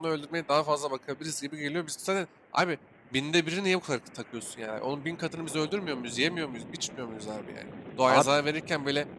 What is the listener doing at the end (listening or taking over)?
listening